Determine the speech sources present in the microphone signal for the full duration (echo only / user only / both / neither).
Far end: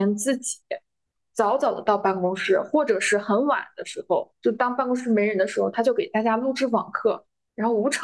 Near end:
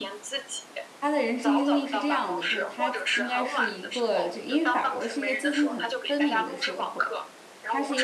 both